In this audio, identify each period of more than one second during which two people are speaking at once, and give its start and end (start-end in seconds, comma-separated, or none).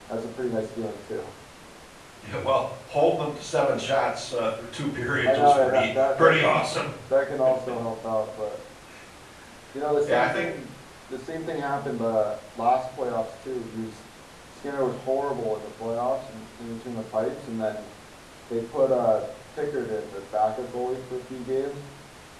5.3-6.6